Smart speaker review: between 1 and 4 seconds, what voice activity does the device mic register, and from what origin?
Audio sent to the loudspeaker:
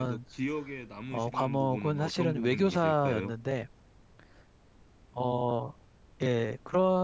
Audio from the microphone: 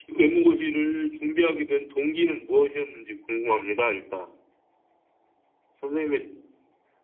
user only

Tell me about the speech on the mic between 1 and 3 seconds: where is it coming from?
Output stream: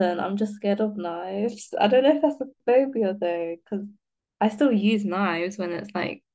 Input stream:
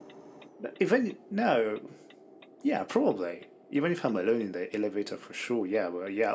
user only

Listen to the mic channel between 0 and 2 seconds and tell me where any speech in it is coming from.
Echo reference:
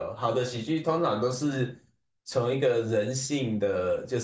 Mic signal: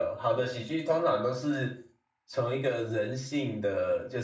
echo only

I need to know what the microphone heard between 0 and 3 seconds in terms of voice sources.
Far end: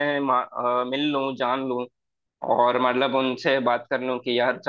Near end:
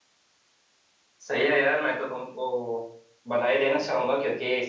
user only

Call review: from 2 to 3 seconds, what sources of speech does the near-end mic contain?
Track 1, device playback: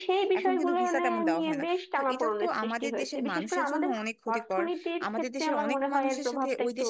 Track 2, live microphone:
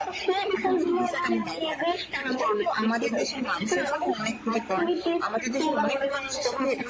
echo only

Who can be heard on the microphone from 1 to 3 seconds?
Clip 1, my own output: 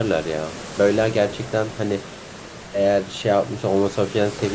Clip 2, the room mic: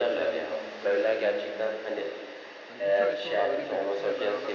both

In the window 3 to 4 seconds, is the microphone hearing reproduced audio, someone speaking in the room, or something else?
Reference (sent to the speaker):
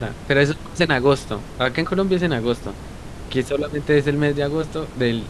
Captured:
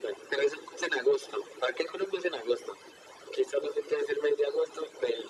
echo only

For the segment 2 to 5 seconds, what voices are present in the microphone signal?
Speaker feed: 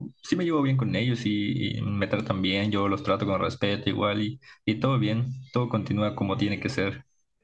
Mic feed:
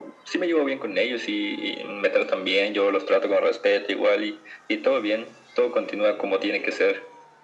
echo only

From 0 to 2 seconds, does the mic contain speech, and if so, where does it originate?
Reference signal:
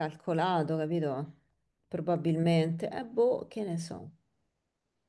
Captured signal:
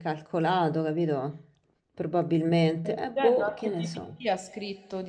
echo only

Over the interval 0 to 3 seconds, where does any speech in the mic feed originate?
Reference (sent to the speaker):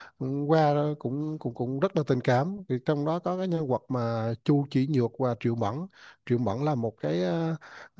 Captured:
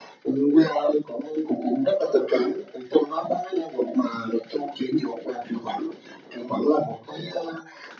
echo only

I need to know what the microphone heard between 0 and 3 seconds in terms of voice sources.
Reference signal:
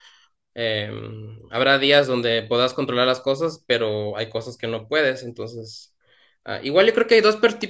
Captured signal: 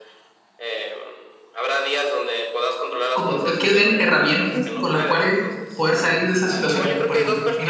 echo only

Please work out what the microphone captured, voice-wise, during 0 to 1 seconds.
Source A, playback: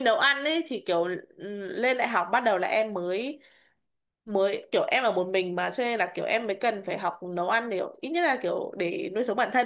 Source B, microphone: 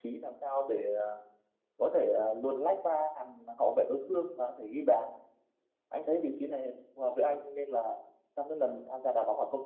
user only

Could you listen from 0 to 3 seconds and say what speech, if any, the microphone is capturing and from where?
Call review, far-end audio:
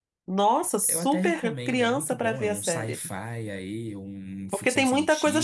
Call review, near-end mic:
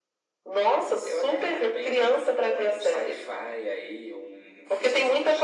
echo only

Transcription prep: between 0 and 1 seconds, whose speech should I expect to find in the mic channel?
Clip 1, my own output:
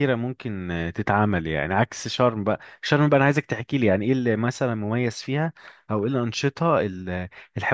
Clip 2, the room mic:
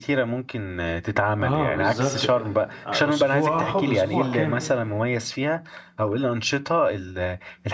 echo only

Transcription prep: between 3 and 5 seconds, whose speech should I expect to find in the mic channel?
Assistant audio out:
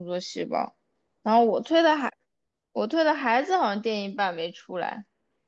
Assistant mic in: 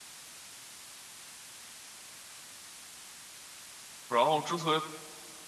user only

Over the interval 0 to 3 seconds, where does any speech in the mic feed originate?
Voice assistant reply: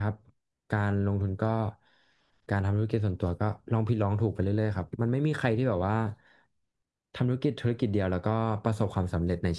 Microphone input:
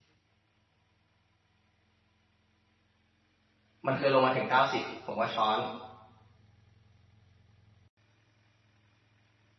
neither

